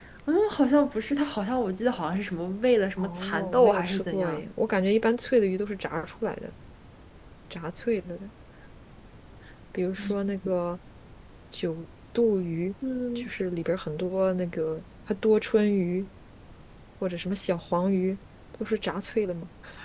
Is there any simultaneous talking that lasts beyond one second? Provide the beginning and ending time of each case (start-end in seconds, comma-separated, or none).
3.0-4.4